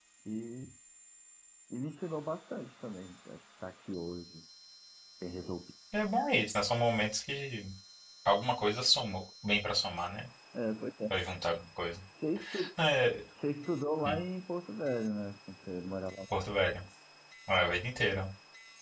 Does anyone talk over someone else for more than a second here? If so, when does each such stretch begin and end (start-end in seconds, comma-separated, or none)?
none